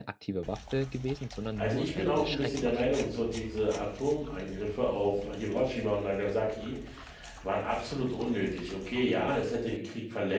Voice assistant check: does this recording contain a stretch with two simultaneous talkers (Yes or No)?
Yes